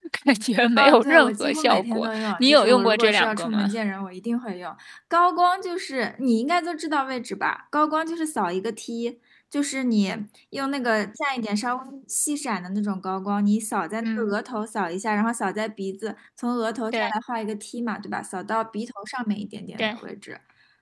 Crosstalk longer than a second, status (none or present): present